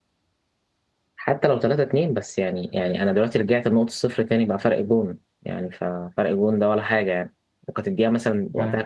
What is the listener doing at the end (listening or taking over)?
listening